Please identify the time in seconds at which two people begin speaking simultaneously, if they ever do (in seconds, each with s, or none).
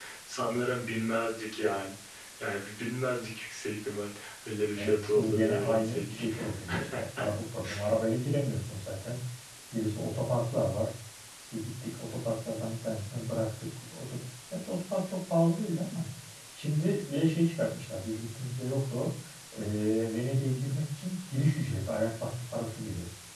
4.8 s